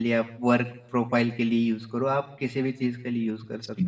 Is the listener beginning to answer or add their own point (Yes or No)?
Yes